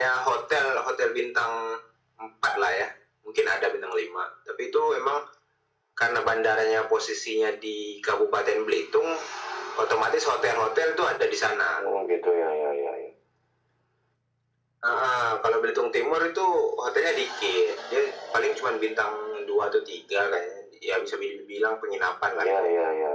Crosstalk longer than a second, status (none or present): none